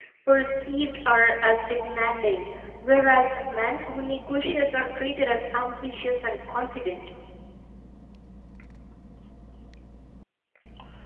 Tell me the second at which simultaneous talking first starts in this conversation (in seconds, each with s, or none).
none